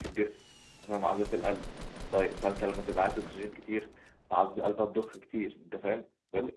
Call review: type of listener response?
listening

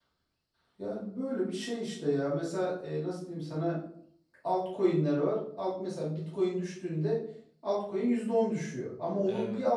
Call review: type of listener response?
listening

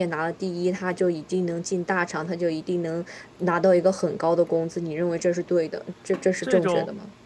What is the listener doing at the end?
taking over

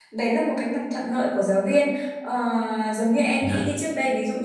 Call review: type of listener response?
listening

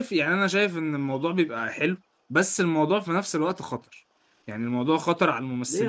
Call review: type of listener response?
taking over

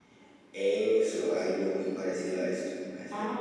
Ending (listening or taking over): taking over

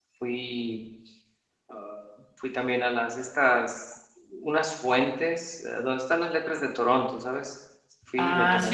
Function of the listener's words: taking over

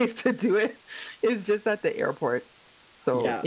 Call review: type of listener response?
taking over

